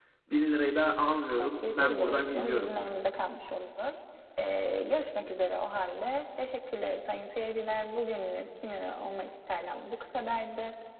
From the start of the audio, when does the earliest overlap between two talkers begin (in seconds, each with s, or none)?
1.4 s